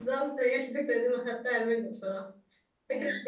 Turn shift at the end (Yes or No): No